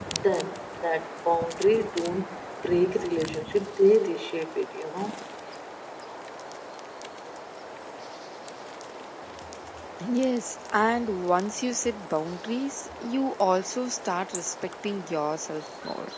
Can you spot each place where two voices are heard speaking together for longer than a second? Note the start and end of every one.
none

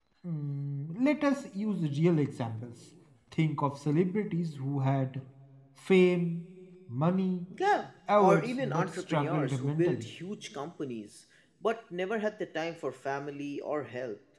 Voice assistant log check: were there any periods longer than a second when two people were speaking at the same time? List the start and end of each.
8.2-10.1

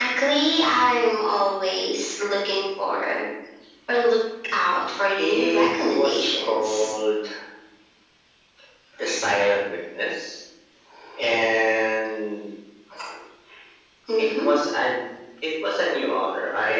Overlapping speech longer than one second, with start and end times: 5.2-6.9

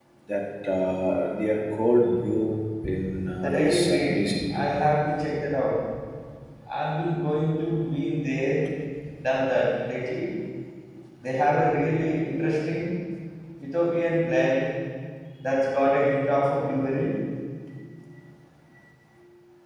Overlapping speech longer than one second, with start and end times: 3.4-4.7

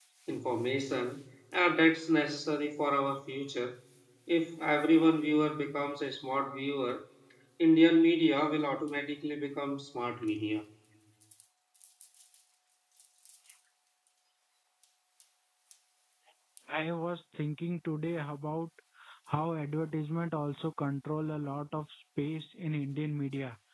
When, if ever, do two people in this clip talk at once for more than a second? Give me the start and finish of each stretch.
none

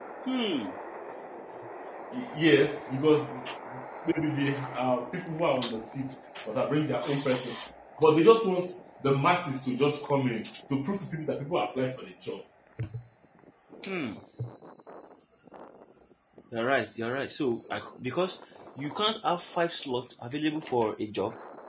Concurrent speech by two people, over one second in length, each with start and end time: none

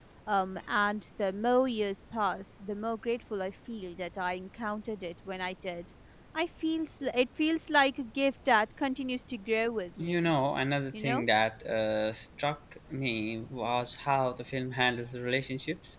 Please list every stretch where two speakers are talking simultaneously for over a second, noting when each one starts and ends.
none

